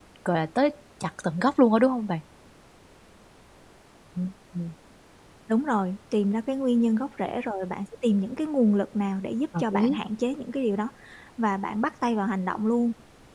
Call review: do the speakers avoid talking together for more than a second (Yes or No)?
Yes